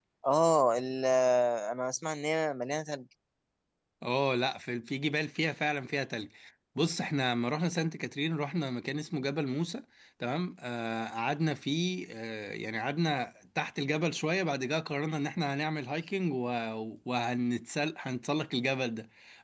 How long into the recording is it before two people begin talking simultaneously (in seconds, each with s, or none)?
none